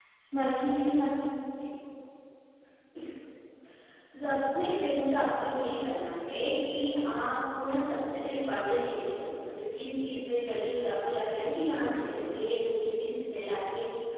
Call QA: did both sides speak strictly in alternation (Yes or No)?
Yes